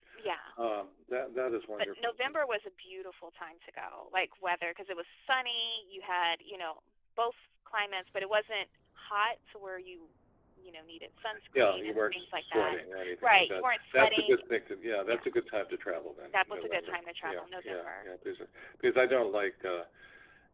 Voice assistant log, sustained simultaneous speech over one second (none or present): present